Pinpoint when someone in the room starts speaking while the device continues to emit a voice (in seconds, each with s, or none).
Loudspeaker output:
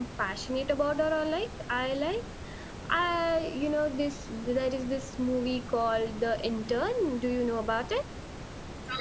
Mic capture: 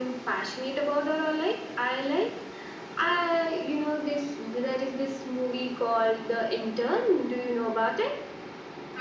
none